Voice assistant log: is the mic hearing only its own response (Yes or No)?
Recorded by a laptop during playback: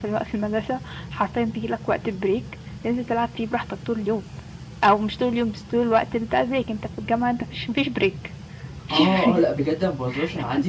No